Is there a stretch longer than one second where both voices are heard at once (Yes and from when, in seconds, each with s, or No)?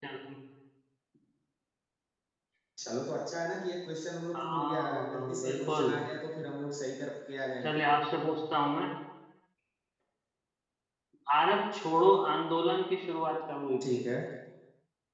Yes, from 4.3 s